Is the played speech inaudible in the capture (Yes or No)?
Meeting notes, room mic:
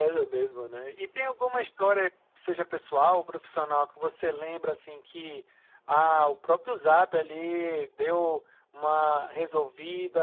No